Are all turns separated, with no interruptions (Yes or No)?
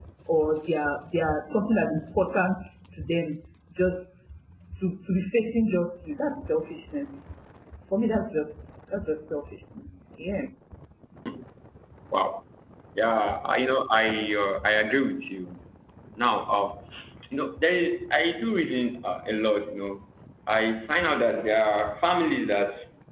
Yes